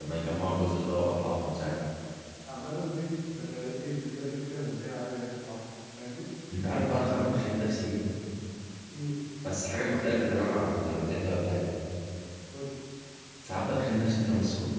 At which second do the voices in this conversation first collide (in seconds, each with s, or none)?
none